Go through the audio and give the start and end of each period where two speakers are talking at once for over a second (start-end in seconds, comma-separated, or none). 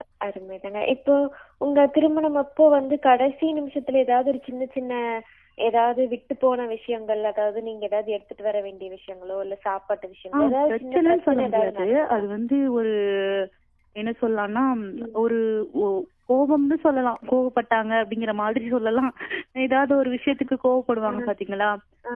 10.4-12.2